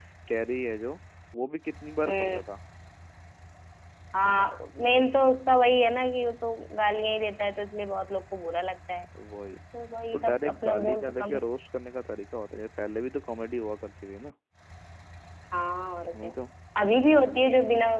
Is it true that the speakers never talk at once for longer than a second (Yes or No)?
No